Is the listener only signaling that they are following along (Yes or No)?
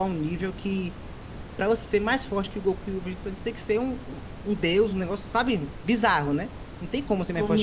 No